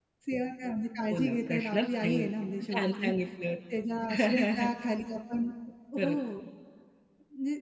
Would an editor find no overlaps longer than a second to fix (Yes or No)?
No